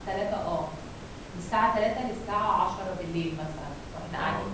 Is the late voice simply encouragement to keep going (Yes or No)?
No